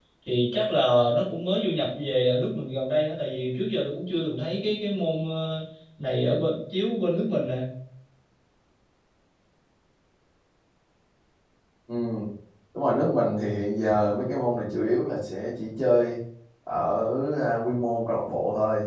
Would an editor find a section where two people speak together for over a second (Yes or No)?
No